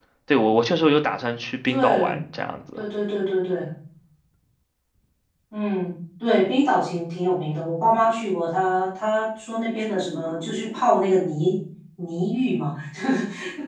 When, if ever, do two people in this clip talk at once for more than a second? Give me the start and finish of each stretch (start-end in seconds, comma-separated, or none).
none